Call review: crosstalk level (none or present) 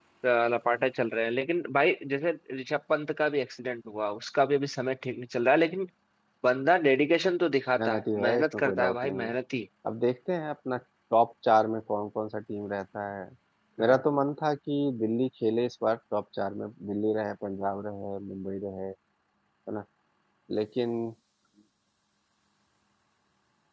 present